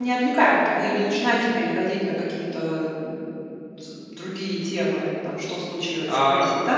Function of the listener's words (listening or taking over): taking over